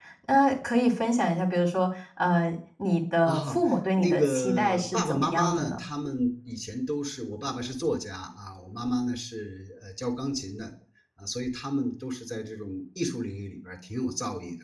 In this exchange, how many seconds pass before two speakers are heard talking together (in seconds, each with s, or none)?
3.2 s